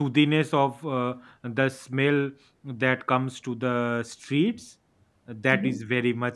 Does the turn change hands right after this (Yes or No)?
No